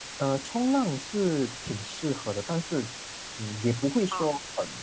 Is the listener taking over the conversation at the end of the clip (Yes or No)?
No